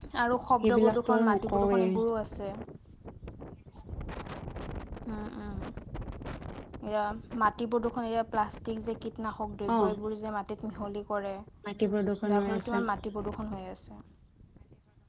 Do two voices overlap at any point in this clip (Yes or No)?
Yes